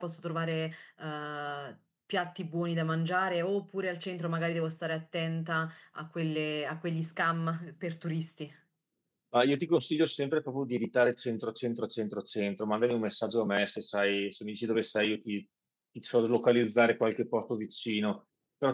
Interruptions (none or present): none